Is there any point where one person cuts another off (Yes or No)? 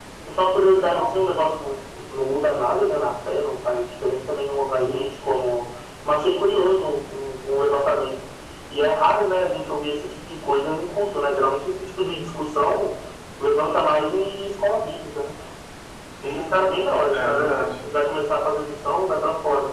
Yes